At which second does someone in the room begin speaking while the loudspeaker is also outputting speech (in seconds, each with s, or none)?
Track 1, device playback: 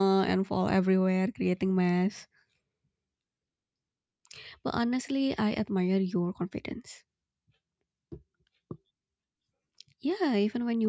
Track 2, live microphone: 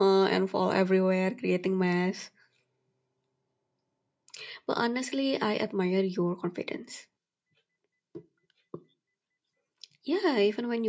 none